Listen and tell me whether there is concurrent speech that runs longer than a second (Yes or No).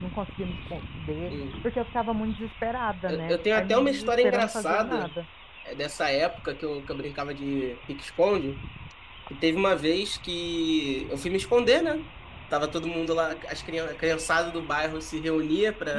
Yes